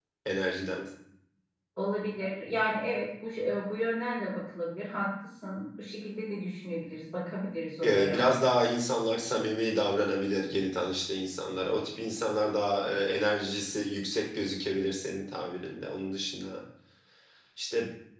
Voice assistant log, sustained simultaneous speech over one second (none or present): none